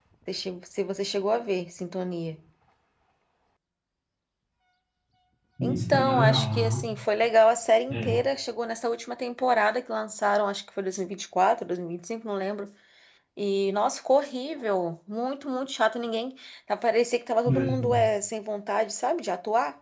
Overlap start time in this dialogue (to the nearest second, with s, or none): 6 s